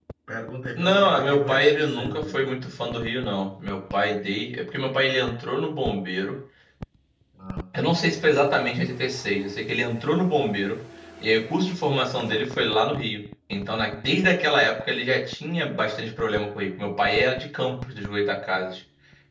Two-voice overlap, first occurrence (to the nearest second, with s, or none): 1 s